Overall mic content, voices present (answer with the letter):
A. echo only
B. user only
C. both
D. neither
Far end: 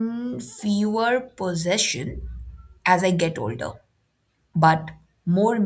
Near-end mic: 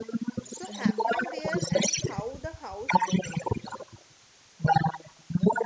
C